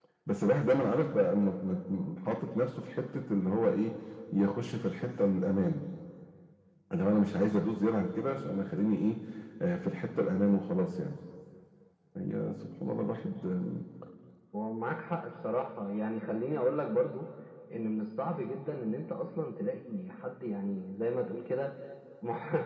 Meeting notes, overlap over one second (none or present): none